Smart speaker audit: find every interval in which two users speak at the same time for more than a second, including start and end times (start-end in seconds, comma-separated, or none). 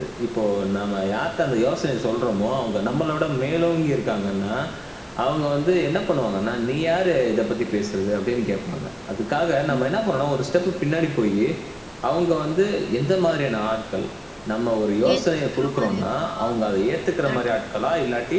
15.1-16.5